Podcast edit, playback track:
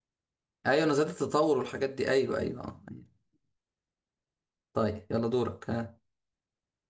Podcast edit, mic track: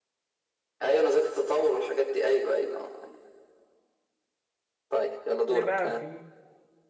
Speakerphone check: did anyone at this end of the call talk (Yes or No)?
Yes